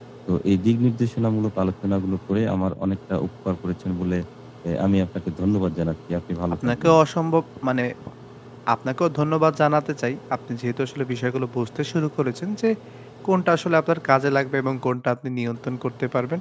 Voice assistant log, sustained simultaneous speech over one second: none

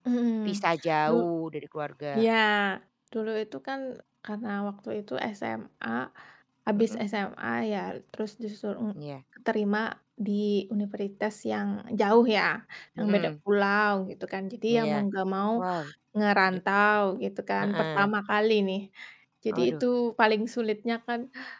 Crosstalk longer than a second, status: none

